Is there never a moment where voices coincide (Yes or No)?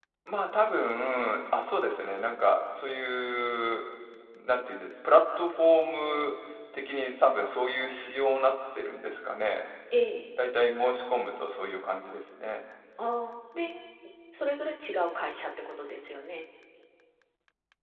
Yes